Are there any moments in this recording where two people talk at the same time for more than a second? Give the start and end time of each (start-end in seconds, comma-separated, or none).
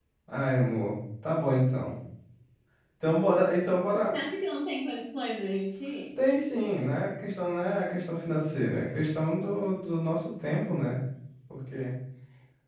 none